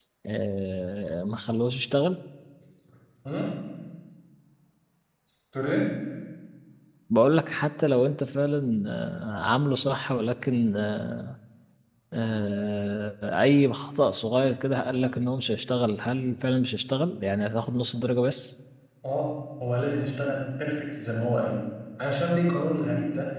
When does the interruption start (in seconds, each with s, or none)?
none